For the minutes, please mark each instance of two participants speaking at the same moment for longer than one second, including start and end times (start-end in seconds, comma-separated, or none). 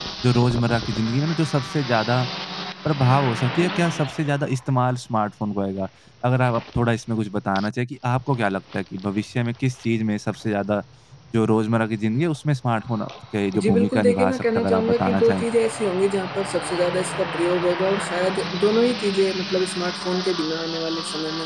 13.6-15.4